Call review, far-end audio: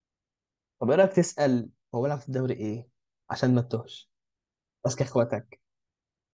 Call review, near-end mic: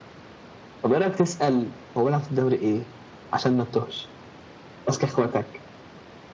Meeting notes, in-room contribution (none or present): none